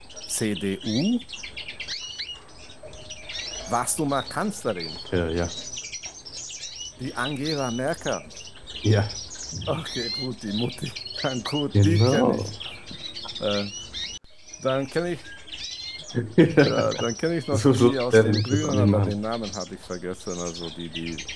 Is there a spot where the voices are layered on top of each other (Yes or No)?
Yes